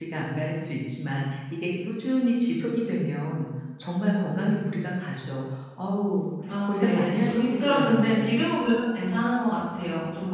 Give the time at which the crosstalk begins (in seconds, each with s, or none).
6.5 s